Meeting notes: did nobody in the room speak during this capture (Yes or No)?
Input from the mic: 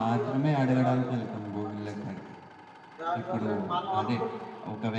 No